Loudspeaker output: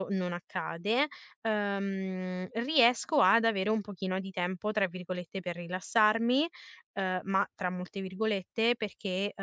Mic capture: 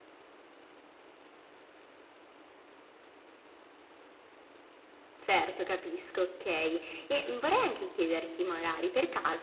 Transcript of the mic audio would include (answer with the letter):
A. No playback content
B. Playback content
A